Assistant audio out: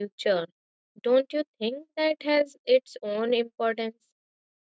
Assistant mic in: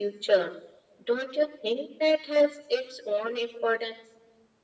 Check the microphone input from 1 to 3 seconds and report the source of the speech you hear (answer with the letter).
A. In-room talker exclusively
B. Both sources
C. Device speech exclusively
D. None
C